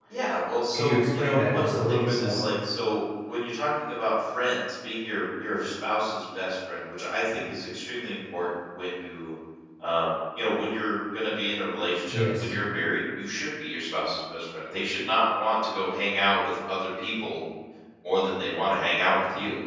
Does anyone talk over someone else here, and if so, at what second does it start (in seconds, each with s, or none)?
0.7 s